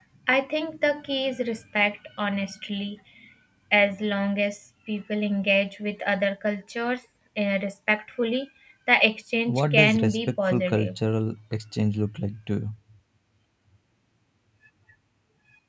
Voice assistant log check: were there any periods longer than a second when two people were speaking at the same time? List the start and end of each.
9.5-11.0

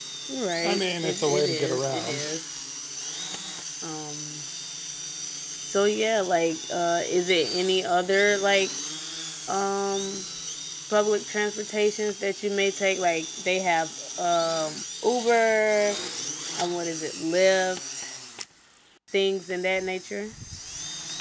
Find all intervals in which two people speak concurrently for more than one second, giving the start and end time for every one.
0.6-2.3

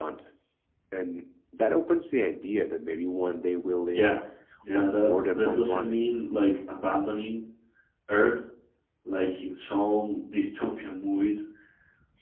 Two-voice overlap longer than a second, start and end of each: 4.7-6.0

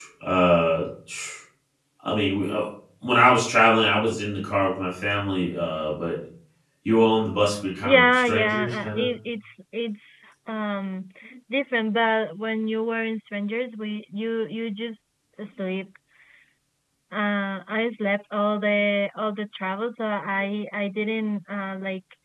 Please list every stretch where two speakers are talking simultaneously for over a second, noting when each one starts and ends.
7.8-9.1

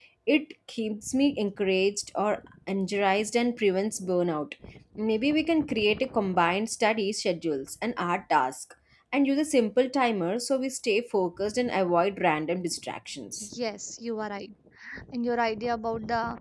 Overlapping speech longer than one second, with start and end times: none

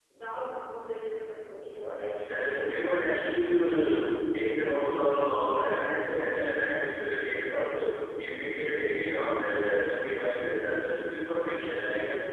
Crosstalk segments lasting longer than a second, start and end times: none

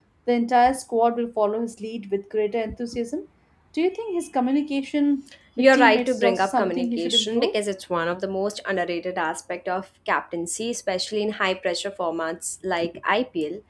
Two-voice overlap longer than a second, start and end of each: 5.6-7.5

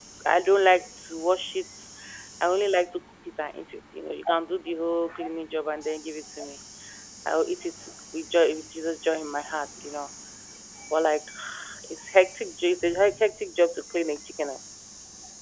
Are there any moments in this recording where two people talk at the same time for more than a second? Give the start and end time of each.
none

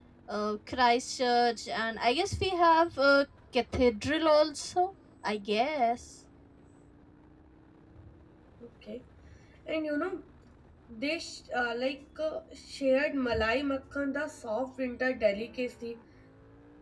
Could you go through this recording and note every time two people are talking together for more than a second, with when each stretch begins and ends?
none

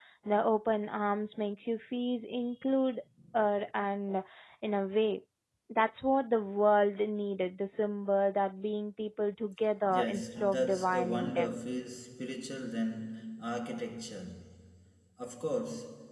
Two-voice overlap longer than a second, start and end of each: 9.9-11.6

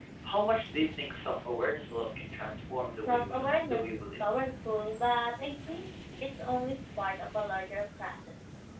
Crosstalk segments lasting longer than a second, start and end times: 3.0-4.2

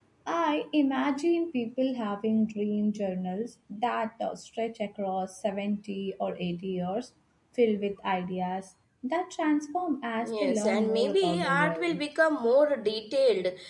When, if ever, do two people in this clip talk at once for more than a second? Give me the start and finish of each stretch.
10.2-12.0

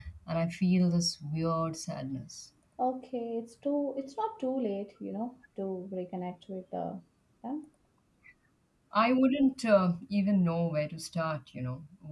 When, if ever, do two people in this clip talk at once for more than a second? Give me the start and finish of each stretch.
none

